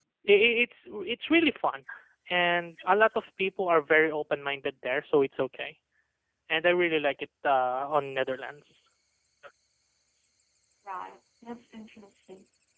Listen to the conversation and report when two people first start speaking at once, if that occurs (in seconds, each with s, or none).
none